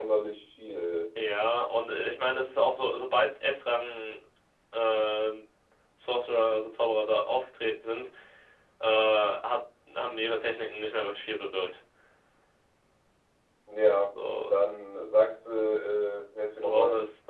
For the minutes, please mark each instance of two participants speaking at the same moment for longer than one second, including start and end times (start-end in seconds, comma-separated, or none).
none